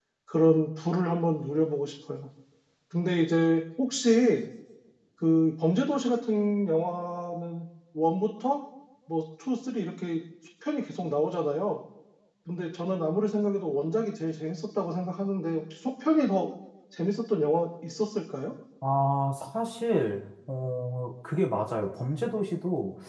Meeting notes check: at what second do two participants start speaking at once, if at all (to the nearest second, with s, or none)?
none